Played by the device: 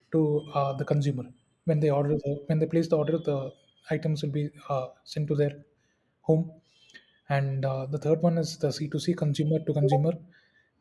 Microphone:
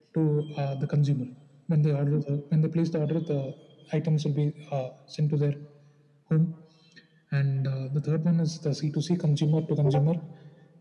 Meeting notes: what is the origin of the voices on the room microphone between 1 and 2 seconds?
echo only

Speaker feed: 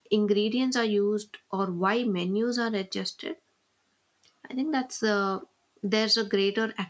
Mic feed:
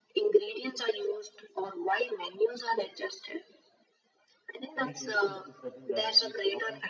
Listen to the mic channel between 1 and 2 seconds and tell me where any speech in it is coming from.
echo only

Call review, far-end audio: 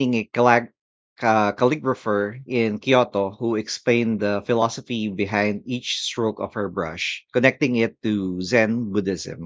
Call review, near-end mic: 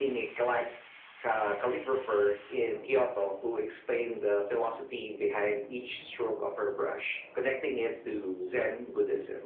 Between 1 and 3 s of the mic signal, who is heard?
echo only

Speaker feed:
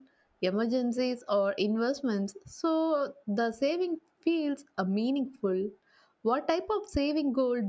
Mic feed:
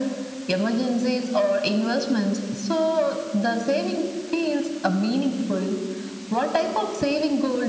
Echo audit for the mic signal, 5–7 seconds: echo only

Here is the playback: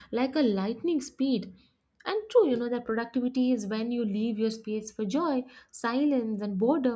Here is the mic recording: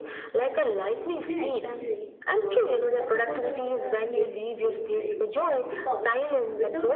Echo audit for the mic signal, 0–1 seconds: echo only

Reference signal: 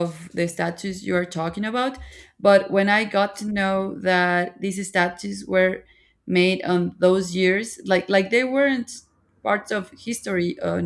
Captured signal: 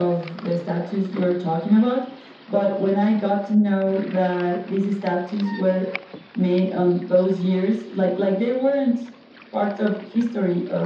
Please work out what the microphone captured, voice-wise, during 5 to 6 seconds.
echo only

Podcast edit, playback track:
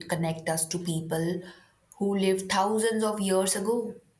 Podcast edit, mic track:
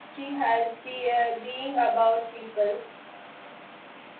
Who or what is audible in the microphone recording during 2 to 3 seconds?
user only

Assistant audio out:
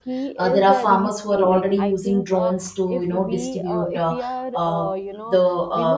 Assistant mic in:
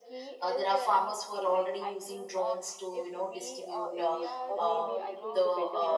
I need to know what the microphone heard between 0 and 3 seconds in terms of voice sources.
echo only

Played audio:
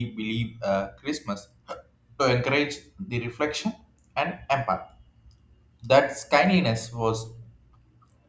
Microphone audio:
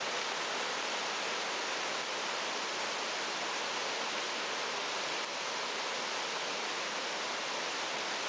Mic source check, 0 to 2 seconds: neither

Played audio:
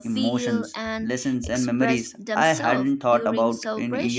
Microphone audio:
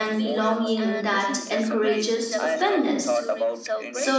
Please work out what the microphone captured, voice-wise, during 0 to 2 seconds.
both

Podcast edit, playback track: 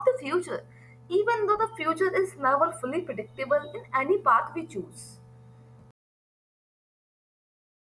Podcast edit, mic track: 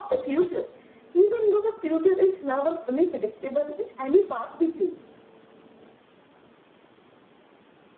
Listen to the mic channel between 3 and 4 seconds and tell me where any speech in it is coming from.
echo only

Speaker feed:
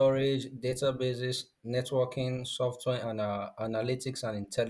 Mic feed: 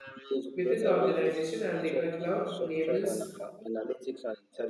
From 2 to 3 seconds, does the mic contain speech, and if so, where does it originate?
both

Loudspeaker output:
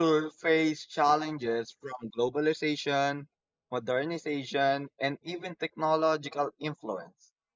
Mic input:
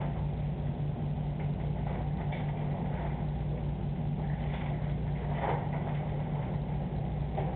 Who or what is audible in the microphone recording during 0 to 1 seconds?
neither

